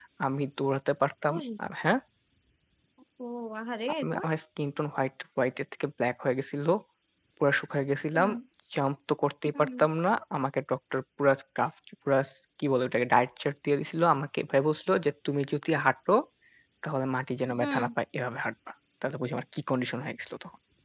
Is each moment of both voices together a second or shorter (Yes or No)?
Yes